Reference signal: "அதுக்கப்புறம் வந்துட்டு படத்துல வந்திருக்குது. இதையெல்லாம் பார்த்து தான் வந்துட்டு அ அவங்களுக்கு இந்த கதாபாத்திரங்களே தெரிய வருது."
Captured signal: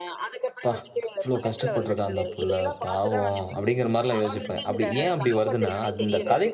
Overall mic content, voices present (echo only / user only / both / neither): both